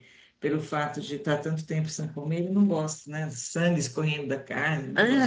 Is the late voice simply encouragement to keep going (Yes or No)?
No